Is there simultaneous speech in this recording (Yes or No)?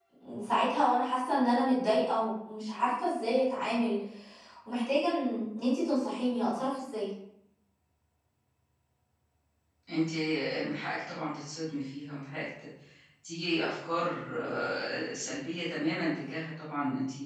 No